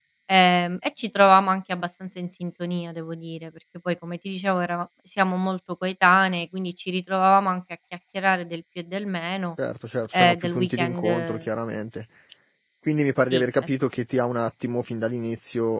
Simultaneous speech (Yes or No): Yes